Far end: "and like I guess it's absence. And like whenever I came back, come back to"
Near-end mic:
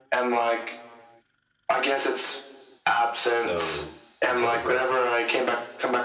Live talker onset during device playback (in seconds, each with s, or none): 3.3 s